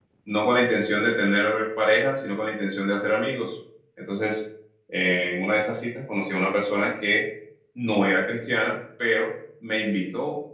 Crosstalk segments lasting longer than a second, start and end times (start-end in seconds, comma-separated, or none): none